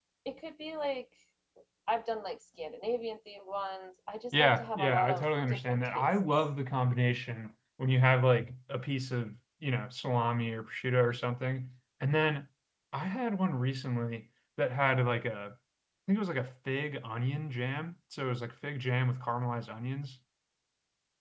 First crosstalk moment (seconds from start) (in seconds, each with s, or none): 4.3 s